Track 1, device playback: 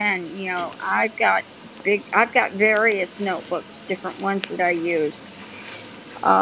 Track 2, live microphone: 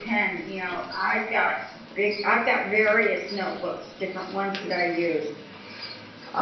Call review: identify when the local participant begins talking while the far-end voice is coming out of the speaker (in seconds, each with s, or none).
none